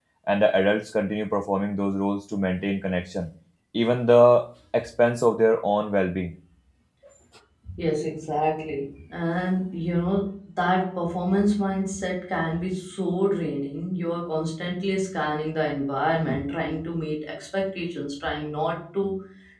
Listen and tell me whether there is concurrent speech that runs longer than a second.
No

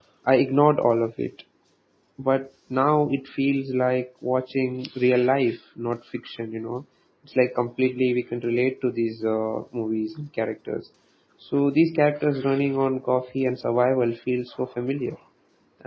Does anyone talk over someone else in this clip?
No

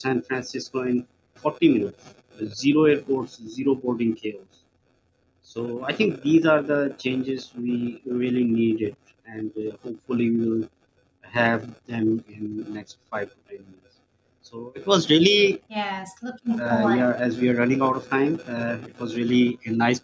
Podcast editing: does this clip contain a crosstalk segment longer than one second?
No

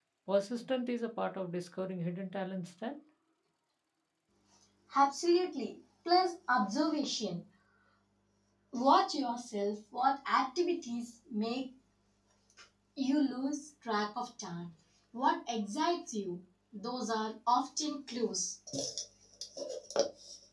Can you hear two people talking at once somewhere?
No

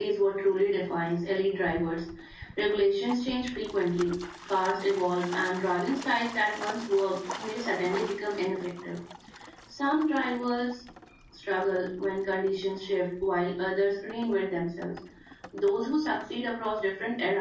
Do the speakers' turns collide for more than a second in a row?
No

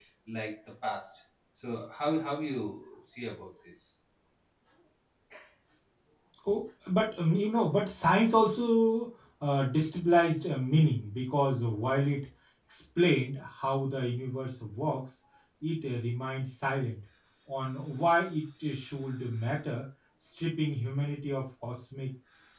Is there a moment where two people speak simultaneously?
No

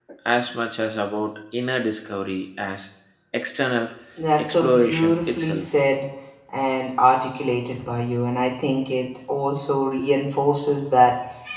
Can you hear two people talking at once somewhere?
Yes, from 4.4 s

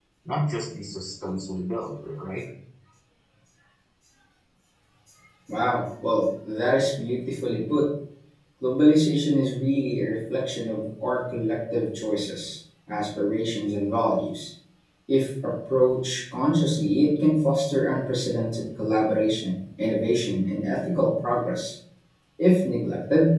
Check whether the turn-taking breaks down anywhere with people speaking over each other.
No

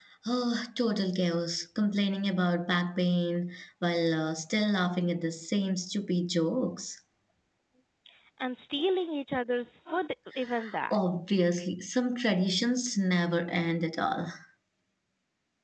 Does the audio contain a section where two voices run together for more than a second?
No

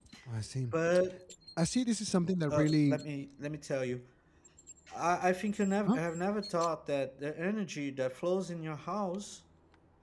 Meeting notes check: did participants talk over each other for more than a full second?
No

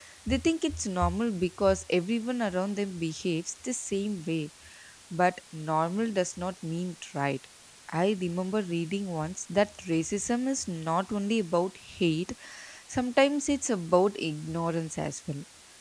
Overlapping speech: No

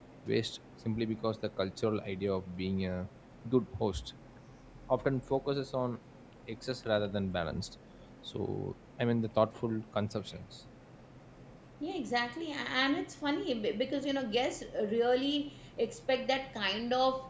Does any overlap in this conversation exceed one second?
No

